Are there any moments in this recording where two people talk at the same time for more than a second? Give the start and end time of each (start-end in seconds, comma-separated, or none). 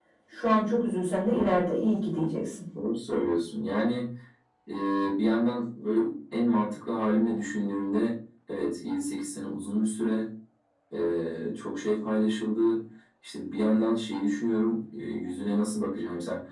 none